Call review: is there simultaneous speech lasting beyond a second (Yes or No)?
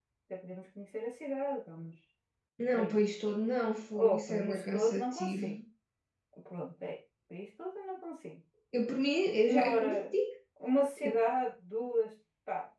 Yes